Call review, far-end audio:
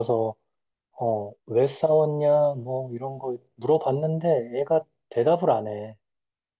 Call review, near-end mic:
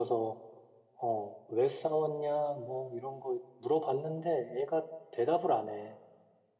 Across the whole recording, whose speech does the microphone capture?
echo only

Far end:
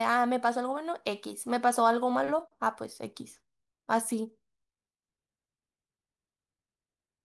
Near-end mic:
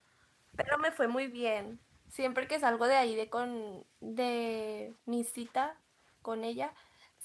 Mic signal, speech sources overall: user only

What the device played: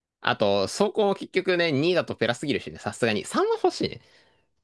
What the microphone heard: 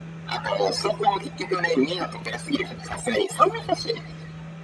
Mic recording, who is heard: echo only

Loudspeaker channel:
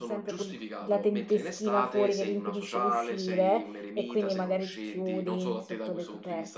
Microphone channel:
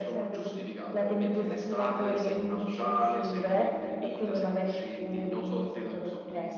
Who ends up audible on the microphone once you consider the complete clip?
echo only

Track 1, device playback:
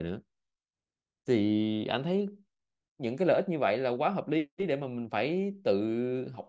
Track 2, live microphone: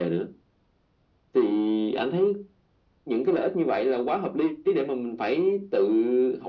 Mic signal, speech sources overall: echo only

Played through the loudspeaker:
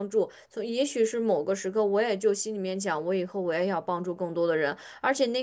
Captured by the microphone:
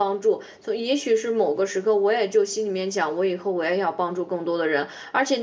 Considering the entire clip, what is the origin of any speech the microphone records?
echo only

